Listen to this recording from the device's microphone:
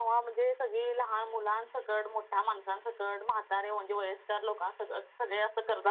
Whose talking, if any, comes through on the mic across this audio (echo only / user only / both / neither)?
echo only